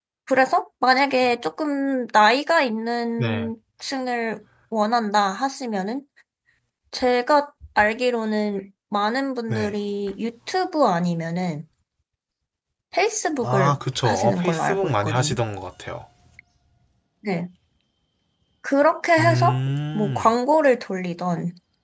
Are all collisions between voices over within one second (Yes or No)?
No